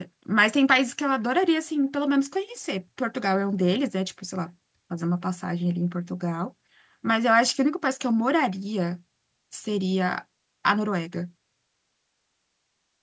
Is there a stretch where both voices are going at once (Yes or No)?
No